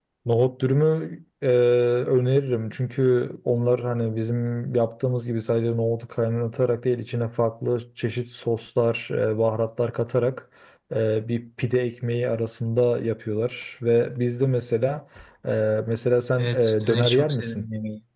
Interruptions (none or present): present